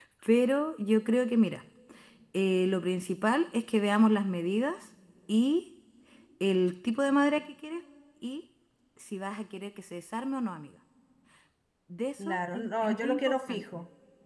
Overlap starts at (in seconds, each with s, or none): 12.2 s